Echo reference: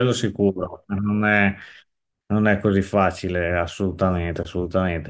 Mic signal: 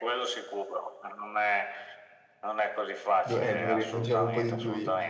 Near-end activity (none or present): present